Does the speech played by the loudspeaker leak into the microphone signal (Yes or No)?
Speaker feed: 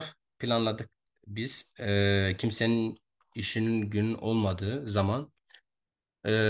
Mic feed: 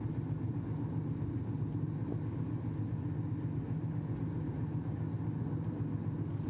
No